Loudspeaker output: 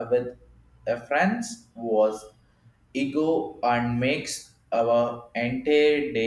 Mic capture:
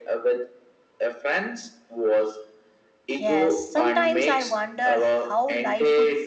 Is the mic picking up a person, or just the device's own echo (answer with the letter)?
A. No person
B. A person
B